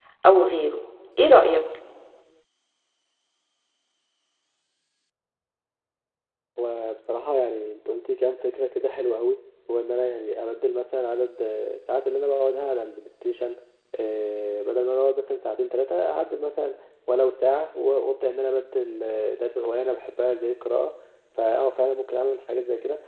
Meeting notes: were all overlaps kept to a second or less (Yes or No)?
Yes